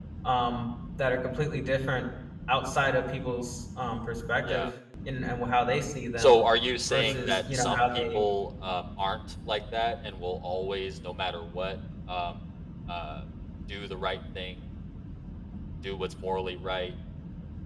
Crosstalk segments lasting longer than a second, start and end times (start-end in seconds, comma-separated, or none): 6.9-8.2